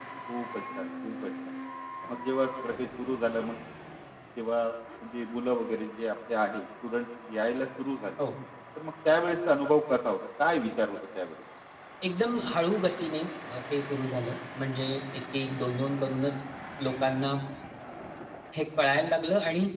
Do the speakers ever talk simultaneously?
No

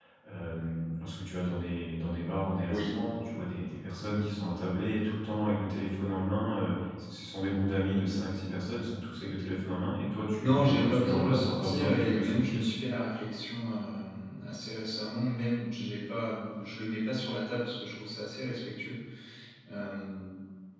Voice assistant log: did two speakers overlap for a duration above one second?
Yes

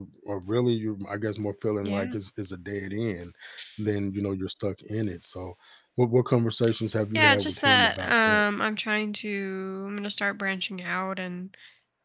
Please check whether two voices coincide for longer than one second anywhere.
Yes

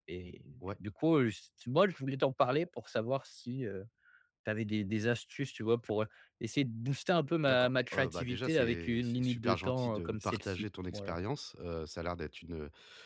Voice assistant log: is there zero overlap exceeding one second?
No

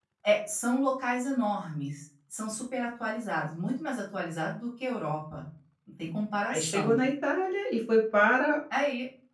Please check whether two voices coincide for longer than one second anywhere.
No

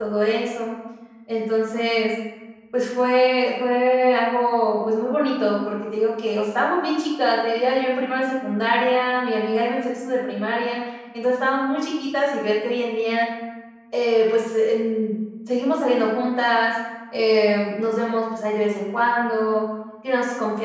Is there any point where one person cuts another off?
No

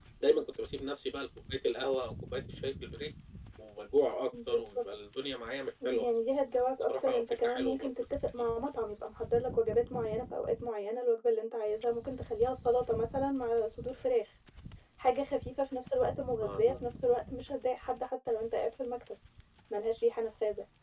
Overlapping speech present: Yes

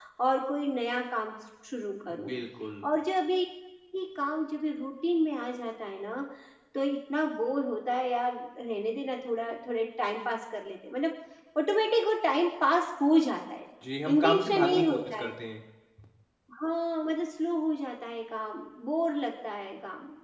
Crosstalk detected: Yes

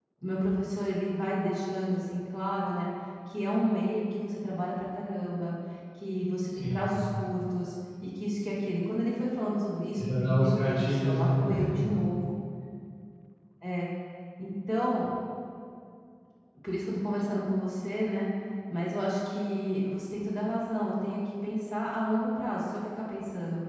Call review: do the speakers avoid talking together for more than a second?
No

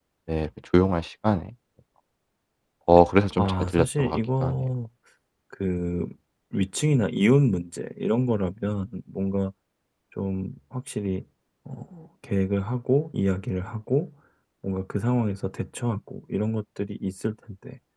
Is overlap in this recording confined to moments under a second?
No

